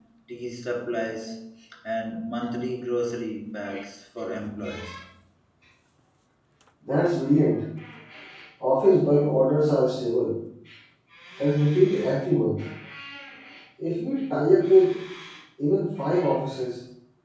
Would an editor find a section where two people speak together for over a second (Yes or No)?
No